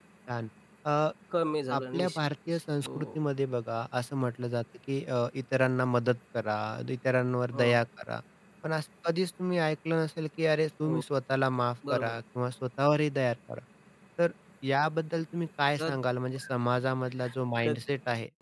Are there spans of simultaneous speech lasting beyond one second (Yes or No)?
Yes